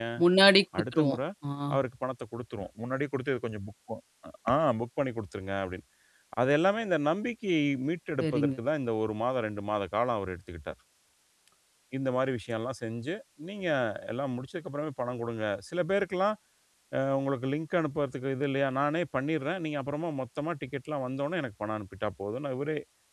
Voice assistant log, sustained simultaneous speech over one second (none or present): none